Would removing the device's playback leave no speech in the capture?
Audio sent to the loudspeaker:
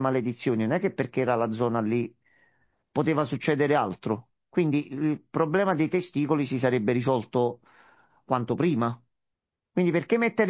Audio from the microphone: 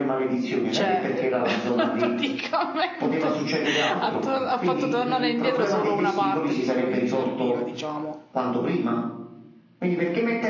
No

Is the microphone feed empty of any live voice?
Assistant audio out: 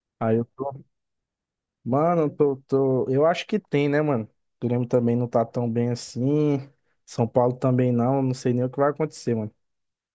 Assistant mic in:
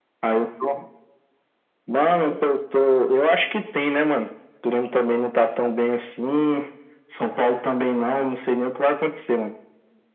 Yes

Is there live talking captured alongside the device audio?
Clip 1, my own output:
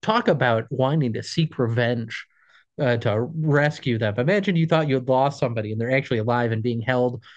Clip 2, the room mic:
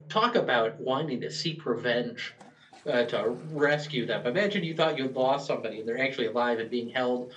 No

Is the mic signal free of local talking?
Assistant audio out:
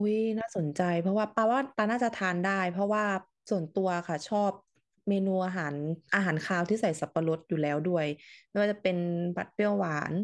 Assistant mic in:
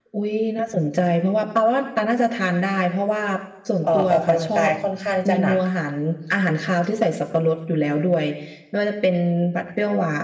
No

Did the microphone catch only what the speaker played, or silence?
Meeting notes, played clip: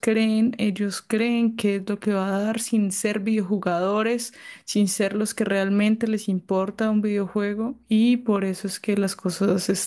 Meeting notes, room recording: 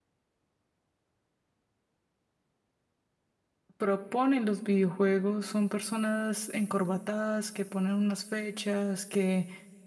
No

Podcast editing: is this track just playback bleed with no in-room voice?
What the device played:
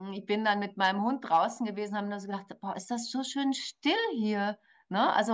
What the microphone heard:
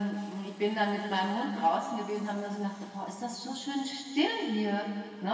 Yes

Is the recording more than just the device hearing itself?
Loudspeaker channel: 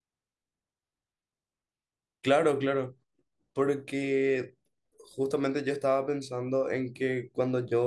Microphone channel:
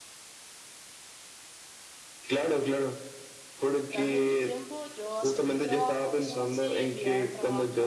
Yes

